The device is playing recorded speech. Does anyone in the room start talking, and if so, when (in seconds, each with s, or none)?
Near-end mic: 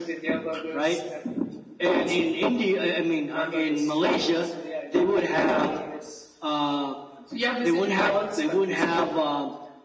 none